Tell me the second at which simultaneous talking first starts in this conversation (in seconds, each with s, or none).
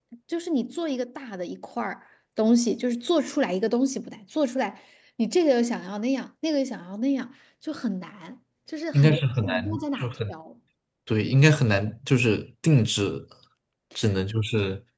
8.9 s